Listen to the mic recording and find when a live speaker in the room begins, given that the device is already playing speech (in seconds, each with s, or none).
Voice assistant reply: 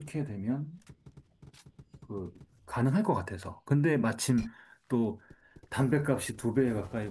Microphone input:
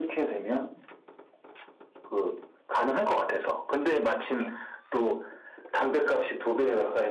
none